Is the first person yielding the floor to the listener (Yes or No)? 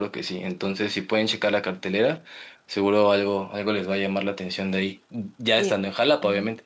Yes